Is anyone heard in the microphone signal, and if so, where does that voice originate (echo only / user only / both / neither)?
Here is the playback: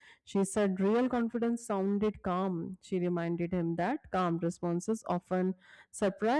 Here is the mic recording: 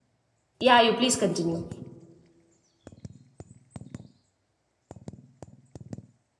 user only